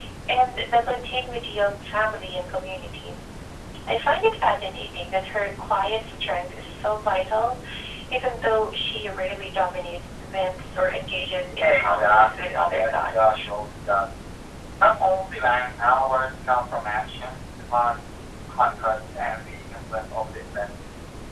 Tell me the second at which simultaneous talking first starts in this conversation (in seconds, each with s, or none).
11.6 s